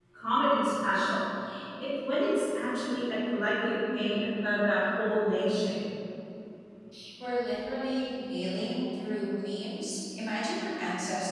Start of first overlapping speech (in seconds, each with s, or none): none